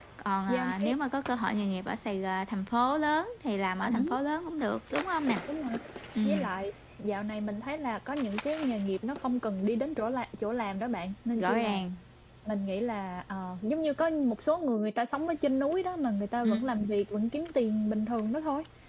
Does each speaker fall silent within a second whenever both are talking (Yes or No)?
Yes